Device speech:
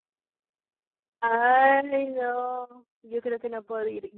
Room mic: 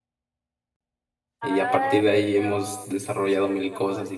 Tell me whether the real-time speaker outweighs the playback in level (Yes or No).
Yes